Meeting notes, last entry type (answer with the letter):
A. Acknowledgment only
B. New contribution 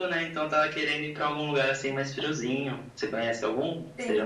B